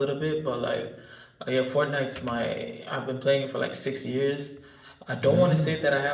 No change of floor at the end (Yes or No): Yes